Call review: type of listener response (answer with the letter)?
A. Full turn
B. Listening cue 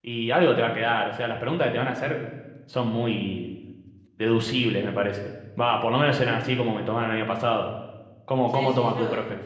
A